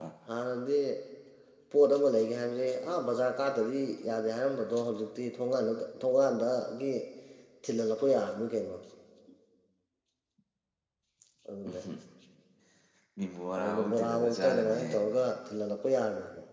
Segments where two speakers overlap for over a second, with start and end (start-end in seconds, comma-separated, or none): 13.6-14.9